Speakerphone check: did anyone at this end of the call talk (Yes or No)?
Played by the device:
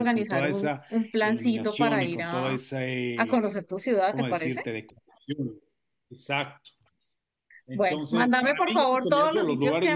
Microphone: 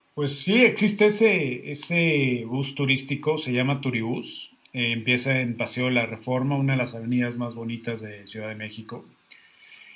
Yes